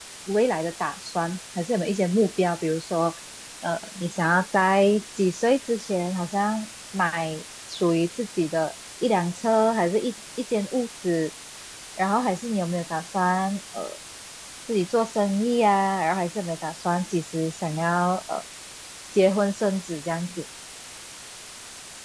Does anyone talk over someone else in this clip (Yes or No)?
No